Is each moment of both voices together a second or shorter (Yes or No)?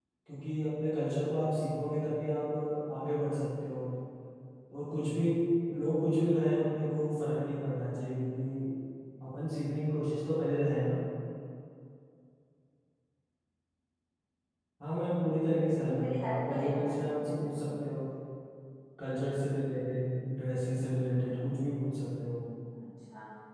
No